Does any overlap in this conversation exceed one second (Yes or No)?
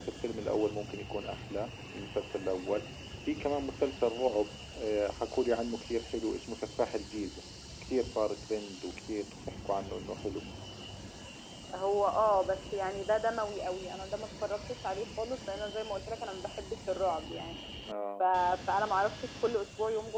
No